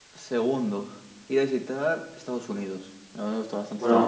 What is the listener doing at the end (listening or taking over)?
taking over